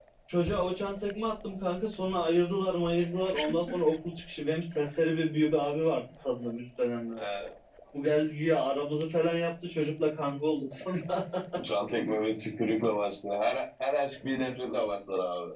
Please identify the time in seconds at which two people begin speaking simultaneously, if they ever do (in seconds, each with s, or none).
none